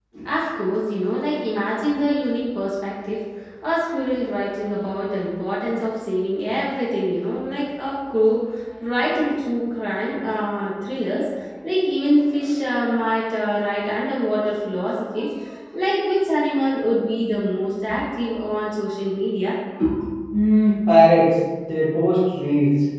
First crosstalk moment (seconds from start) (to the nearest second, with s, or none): none